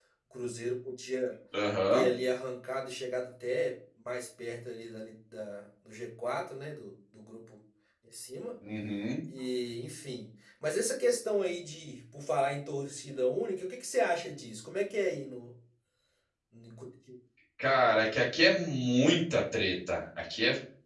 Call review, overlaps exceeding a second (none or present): none